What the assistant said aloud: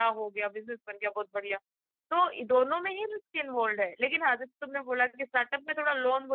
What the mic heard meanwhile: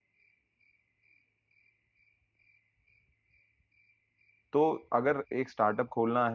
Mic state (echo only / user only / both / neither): user only